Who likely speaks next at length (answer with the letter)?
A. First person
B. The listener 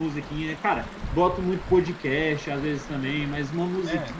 A